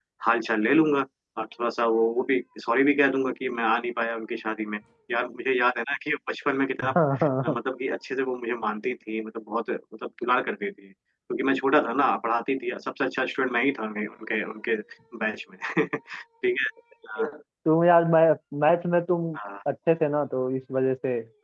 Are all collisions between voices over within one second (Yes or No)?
Yes